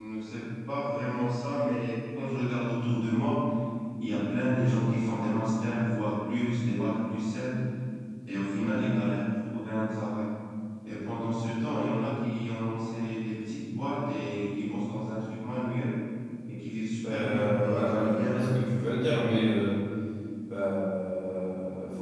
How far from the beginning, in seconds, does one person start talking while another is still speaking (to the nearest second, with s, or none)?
17 s